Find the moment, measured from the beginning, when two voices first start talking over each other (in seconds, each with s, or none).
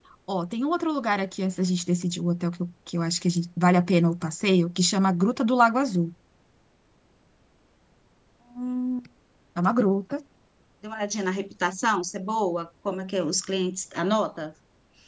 none